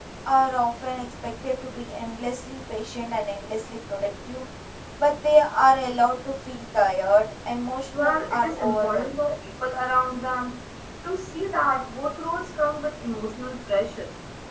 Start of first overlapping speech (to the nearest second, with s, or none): 8 s